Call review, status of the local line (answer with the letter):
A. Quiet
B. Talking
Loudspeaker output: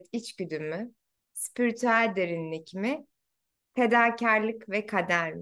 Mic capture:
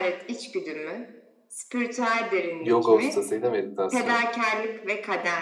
B